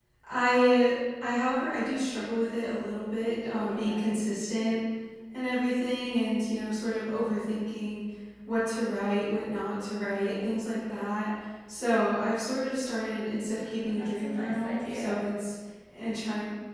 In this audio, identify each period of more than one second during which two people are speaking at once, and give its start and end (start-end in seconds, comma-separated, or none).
13.8-15.2